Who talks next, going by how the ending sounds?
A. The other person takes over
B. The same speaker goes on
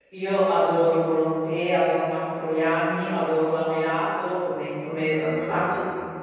B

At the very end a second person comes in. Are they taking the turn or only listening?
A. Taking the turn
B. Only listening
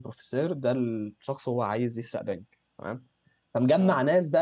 B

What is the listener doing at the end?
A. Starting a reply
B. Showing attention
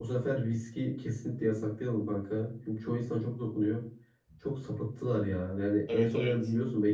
B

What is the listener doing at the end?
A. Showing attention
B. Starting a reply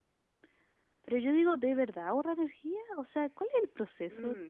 B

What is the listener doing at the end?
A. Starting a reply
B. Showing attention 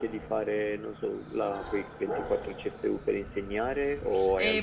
A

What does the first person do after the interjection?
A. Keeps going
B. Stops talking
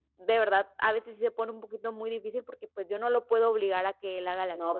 A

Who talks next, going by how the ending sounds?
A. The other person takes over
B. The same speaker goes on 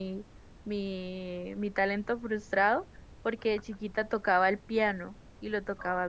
B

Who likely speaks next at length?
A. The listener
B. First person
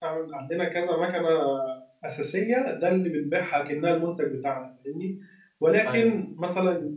B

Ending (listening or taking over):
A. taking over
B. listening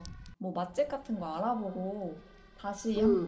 A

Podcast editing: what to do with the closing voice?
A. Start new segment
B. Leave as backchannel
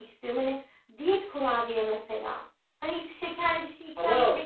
A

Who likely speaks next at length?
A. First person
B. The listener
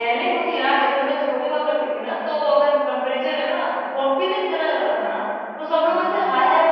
A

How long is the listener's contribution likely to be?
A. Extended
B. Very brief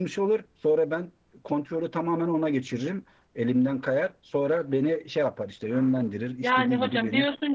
A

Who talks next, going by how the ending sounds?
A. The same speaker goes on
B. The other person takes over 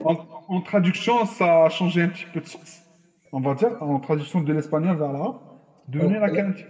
A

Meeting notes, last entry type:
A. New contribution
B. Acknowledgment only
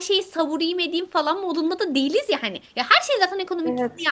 B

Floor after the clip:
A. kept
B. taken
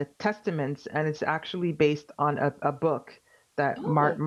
A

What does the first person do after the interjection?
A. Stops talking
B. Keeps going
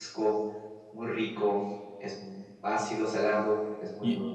A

